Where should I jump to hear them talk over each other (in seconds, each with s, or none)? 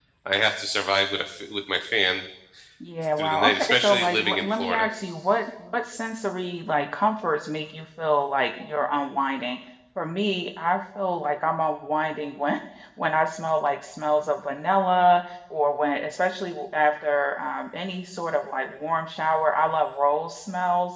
3.2 s